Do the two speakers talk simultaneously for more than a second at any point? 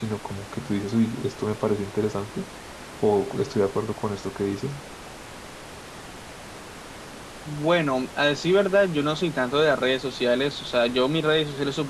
No

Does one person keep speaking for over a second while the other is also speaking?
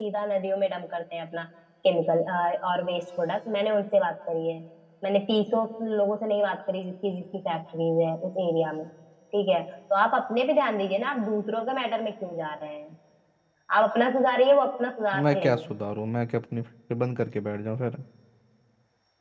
No

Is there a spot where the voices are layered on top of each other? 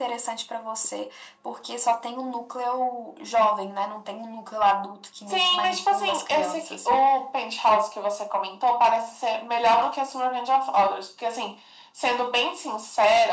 Yes, from 5.3 s

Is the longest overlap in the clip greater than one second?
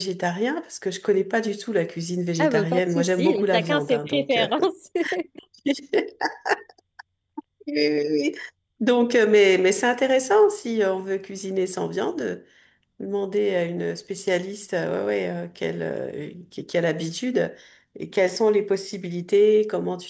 Yes, from 2.4 s

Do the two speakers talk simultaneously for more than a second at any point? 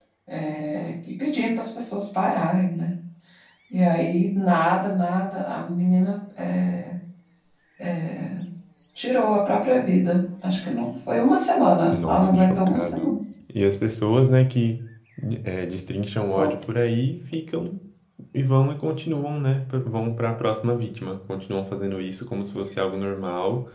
Yes, from 11.7 s

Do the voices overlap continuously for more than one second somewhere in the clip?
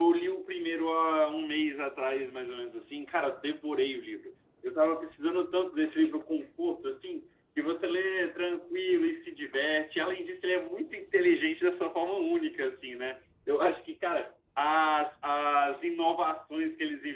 No

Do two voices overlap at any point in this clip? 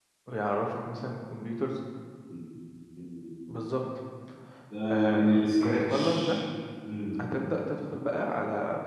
Yes, from 4.9 s

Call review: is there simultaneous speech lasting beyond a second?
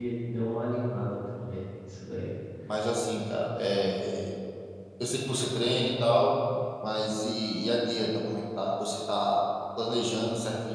No

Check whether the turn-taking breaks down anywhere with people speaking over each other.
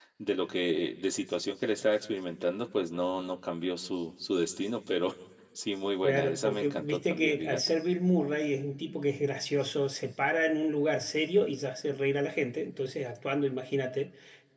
Yes, from 6.0 s

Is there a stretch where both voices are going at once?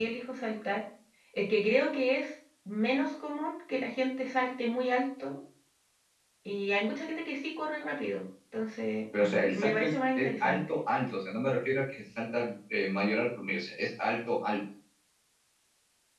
Yes, from 9.1 s

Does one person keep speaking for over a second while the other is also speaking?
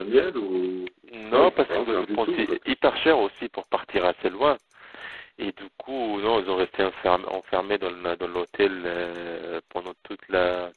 Yes, from 1.3 s

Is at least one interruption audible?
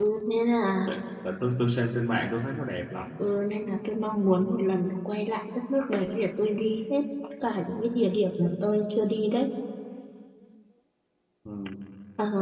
No

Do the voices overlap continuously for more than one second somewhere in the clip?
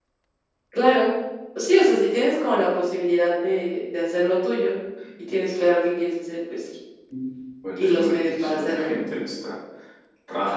Yes, from 7.8 s

